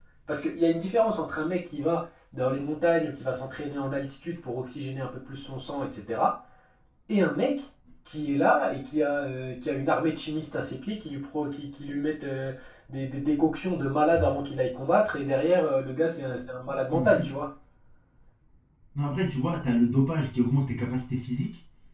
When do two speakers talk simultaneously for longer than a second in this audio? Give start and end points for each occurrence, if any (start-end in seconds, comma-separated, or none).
none